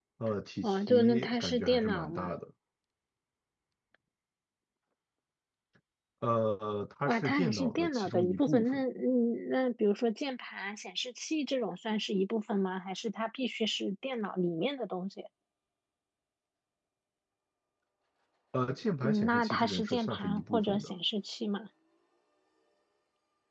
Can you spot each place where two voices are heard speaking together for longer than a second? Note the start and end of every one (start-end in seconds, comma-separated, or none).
0.6-2.3, 7.0-8.8, 19.0-20.9